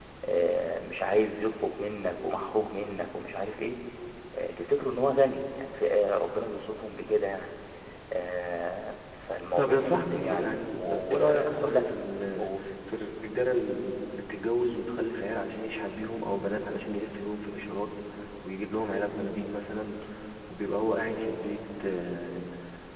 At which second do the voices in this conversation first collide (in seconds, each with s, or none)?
9.6 s